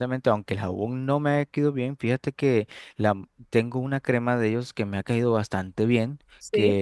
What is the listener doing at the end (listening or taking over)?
listening